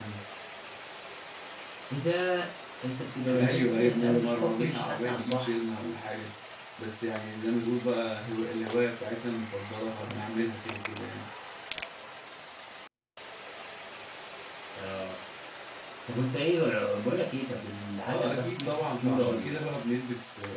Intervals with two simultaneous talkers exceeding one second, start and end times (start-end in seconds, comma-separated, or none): 3.3-5.6, 18.1-19.7